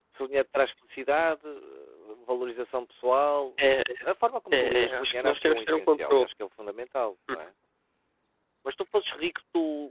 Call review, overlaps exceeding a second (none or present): present